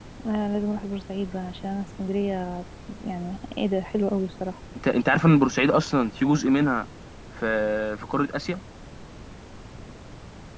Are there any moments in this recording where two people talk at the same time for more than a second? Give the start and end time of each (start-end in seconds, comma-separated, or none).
none